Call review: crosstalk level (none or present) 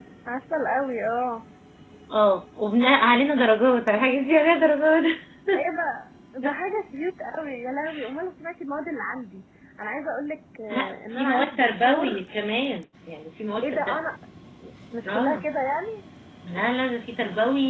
present